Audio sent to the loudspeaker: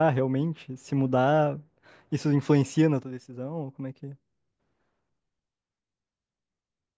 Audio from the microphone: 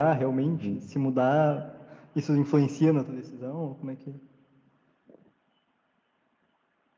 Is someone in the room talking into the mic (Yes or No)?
Yes